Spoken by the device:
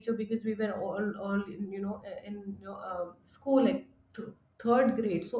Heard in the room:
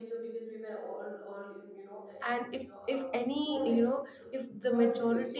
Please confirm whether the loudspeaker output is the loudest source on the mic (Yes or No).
No